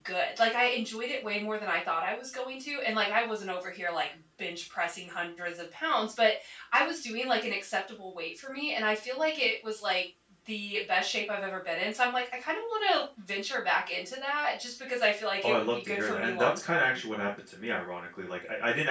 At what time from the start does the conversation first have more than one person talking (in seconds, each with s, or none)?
15.4 s